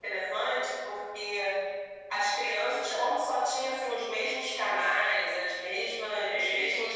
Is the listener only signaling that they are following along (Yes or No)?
Yes